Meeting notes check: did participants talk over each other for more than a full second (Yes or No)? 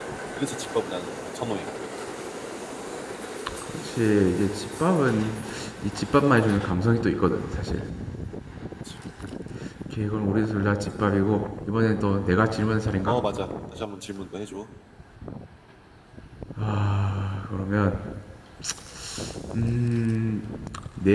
No